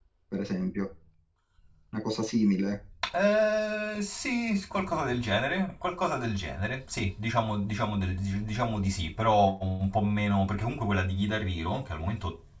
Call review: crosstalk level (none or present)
none